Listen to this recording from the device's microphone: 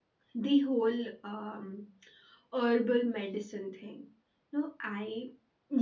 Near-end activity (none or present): present